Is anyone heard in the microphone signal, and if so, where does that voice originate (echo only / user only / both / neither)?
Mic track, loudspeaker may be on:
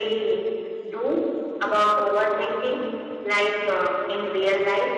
echo only